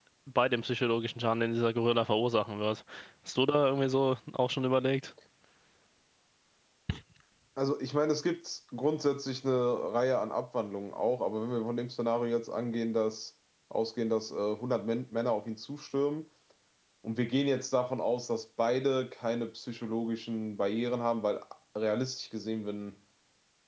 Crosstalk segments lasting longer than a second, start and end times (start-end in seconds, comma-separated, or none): none